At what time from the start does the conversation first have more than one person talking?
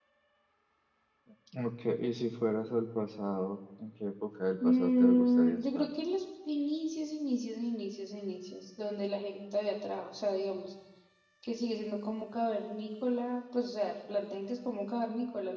5 s

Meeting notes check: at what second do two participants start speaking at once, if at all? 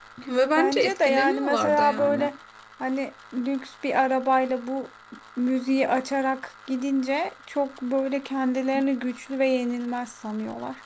1 s

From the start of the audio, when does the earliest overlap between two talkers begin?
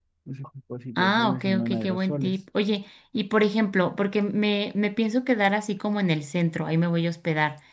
1 s

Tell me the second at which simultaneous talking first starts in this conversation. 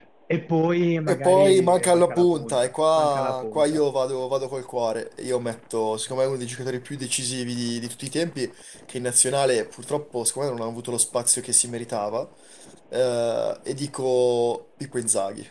1 s

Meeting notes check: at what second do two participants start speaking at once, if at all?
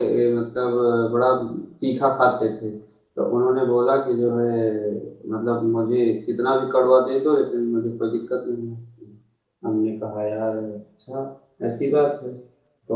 none

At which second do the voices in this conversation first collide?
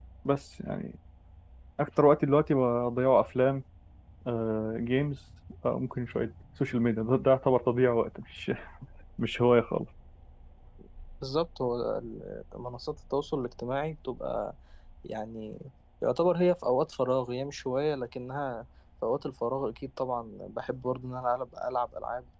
none

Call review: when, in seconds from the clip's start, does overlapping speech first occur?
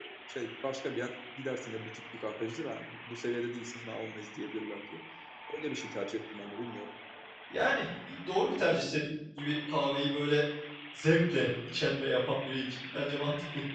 none

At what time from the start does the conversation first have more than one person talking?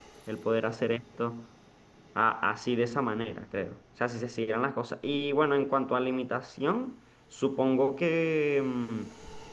none

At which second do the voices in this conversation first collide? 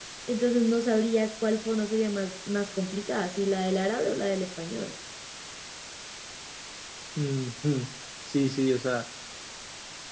none

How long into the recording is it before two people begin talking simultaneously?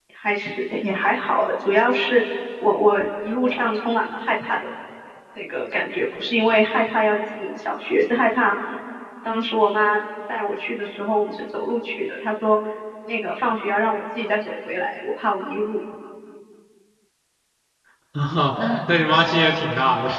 none

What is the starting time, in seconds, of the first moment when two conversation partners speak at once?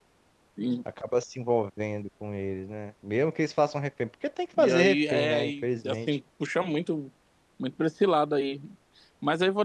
5 s

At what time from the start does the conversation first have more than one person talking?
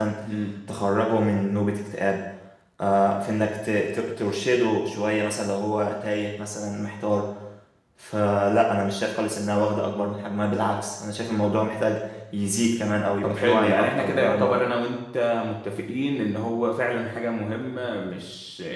13 s

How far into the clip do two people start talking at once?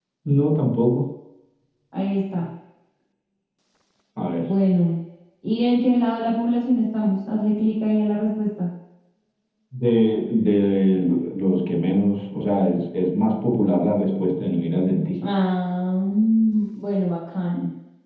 none

